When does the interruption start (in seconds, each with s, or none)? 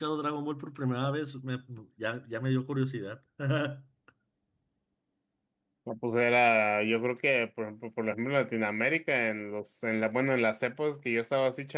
none